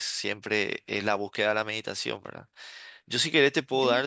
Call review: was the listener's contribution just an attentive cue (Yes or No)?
Yes